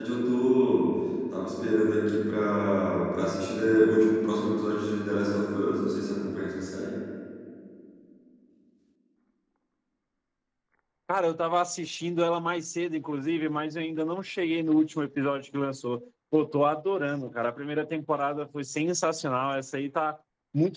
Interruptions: none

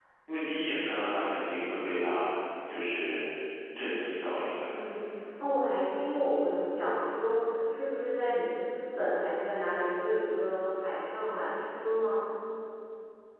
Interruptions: none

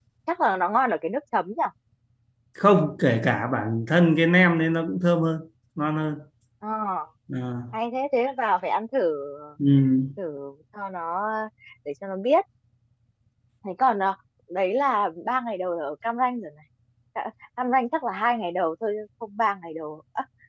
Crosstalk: none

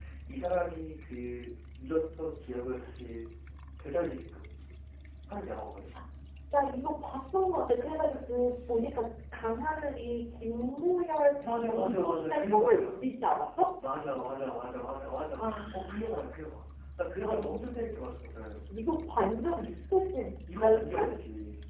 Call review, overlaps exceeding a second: present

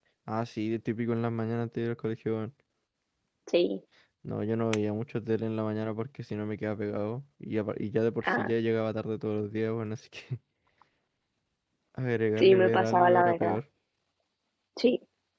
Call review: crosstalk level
present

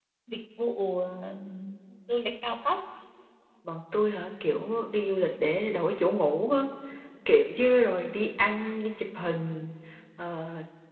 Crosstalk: none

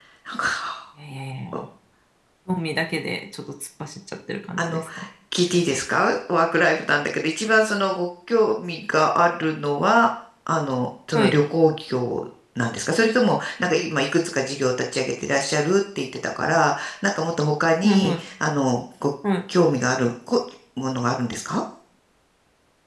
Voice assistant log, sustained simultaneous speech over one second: none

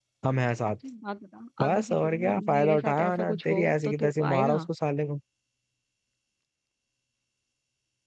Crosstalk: present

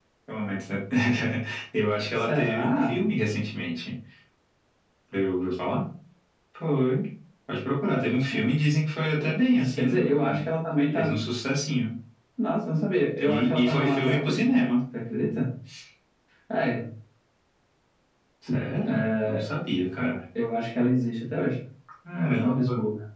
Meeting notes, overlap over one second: present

